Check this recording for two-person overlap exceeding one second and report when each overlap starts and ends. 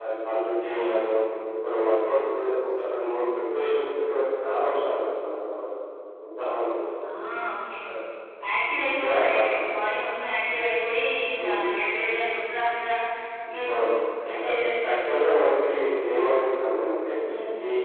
none

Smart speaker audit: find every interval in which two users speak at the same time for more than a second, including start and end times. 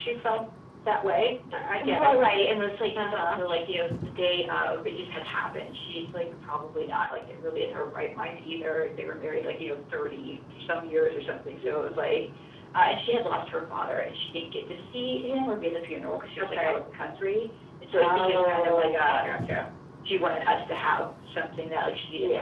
17.9-19.3

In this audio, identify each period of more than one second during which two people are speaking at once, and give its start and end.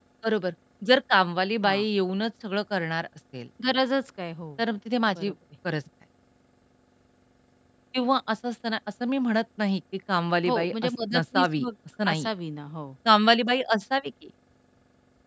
10.4-11.7

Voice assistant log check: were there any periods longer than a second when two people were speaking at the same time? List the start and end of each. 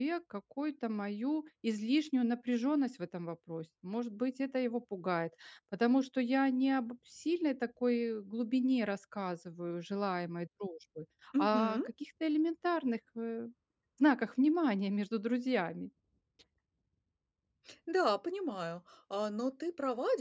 none

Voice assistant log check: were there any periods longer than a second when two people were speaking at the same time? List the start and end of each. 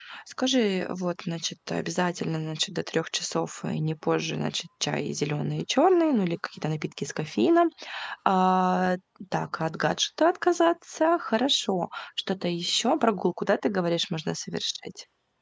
none

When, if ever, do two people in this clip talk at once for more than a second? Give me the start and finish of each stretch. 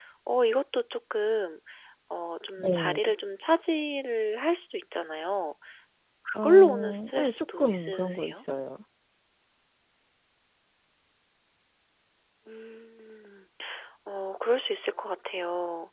6.3-8.3

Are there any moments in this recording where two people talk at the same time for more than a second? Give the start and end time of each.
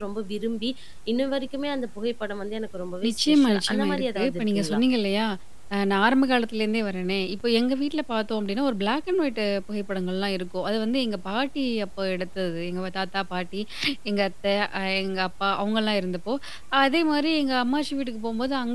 3.1-4.8

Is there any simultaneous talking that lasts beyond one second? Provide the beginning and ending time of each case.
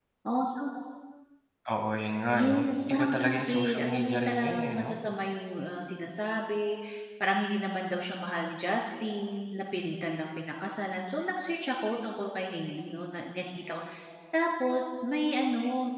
2.3-4.9

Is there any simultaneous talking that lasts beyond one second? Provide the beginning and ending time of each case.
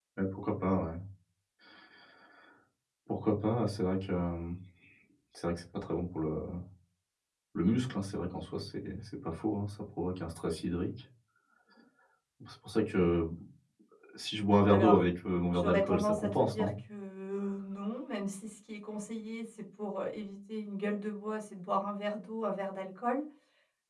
15.5-16.7

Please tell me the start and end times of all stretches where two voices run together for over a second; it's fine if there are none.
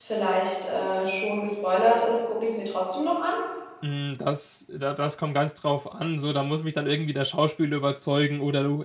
none

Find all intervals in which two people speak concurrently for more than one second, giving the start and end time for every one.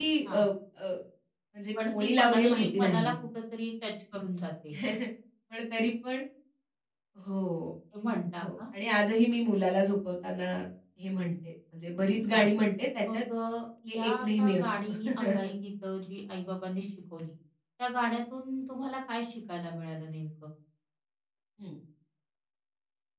1.9-3.1, 13.9-15.5

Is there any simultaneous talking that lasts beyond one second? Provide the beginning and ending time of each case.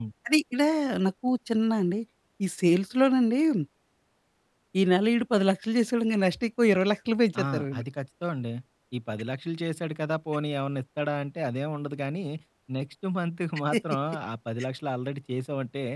none

